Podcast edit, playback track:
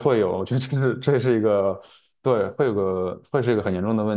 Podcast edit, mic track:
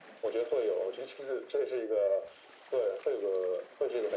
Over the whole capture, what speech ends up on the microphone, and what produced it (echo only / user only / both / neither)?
echo only